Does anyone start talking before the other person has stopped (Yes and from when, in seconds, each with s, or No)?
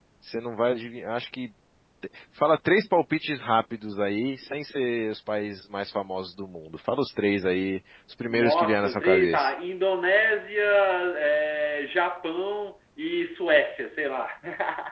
Yes, from 8.3 s